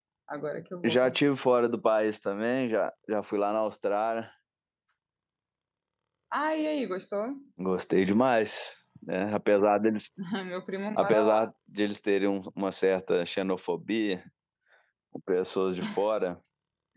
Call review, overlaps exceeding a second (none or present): none